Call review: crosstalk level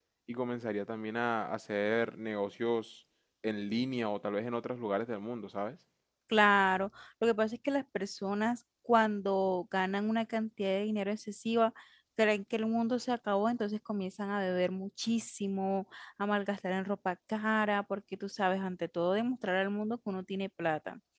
none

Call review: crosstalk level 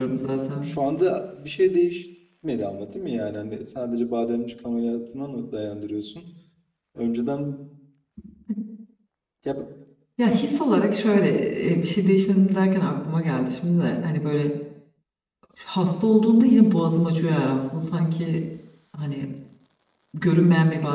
none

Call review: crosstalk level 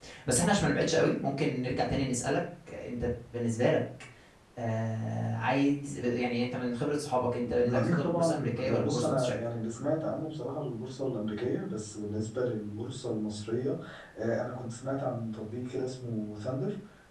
present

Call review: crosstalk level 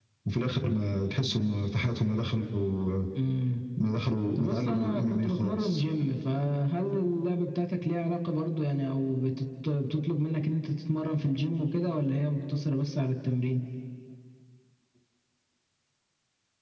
present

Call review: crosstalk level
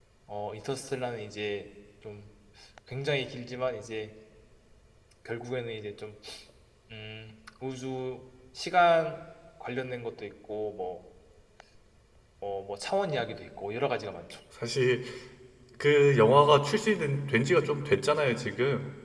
none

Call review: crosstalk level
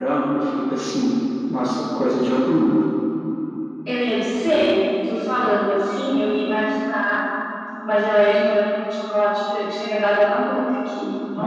none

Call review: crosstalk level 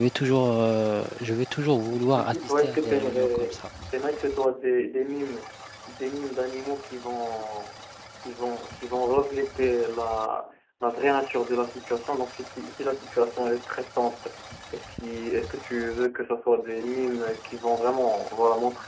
present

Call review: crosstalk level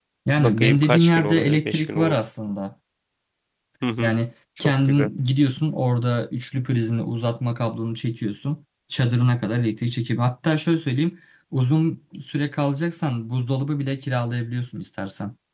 present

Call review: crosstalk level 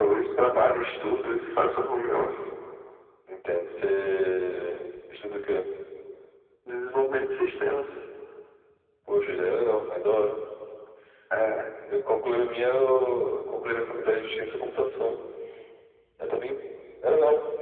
none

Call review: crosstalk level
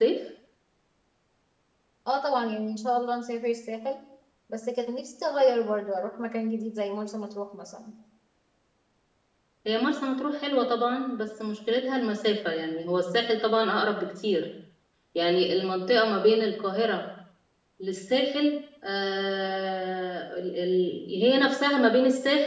none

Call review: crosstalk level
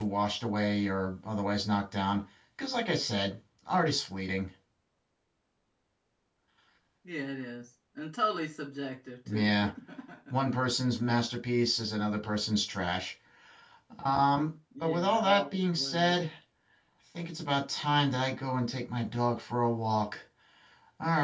present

